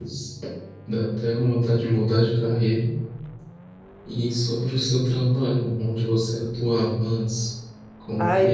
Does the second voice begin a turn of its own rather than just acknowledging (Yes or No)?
Yes